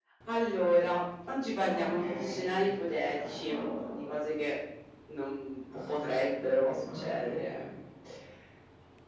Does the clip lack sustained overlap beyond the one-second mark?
No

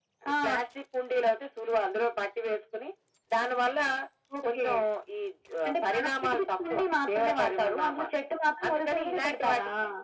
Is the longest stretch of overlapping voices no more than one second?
No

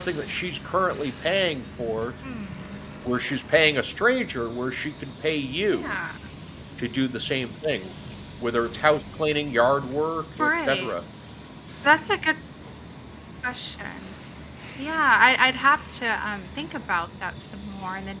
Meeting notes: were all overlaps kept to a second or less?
Yes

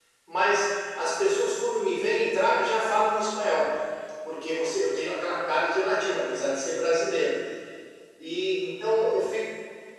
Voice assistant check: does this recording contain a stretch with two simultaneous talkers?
No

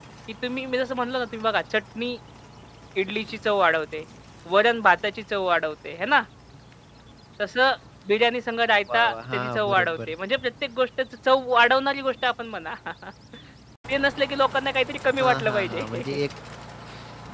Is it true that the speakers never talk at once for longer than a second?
No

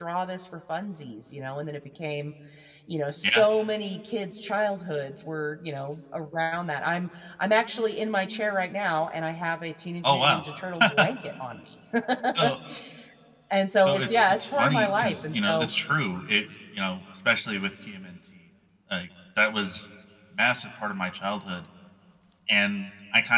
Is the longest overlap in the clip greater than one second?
Yes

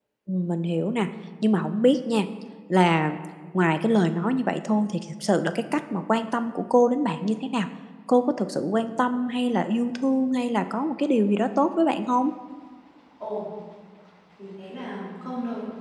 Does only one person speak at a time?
Yes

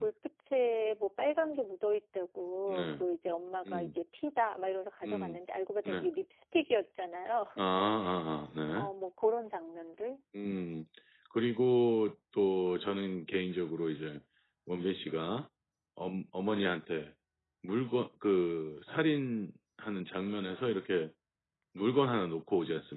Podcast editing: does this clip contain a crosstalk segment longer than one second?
No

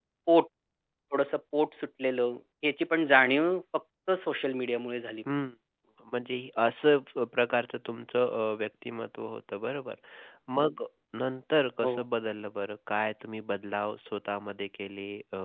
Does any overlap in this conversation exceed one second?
No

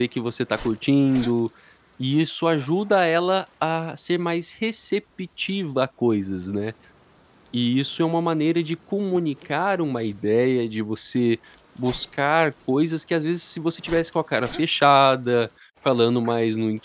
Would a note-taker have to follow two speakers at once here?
No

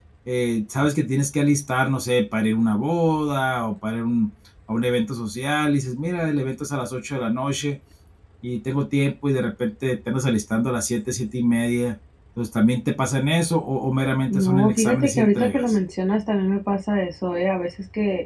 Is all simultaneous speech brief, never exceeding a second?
No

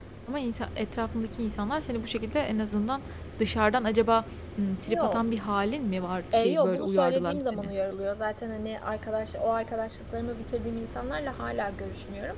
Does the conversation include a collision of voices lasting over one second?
Yes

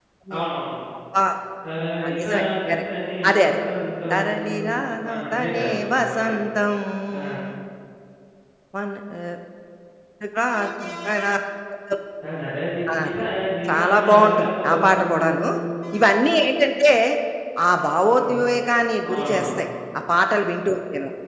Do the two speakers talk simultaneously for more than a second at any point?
Yes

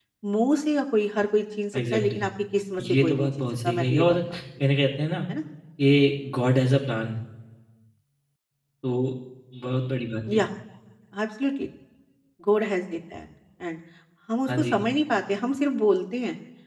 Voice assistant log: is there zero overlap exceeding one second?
No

